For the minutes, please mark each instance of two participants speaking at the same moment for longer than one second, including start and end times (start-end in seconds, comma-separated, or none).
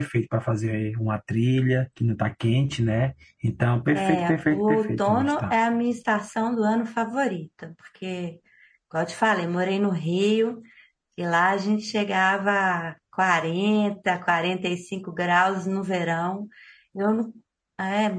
4.0-5.5